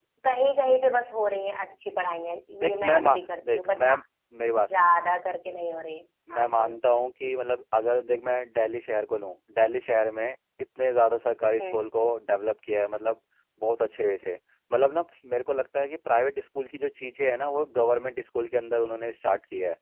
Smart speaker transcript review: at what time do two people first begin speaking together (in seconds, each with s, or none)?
2.6 s